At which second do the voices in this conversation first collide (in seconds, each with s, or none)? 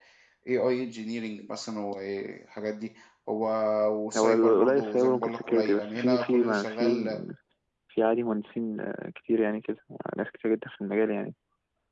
4.2 s